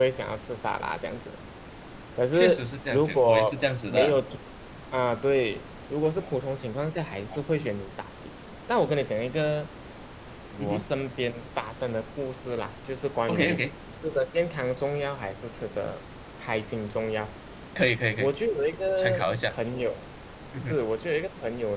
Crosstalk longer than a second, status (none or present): present